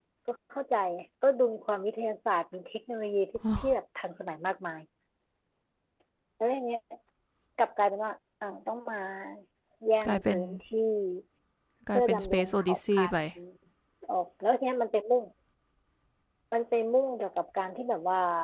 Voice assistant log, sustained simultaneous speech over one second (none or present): present